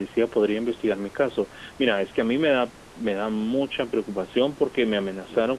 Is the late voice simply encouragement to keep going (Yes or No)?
Yes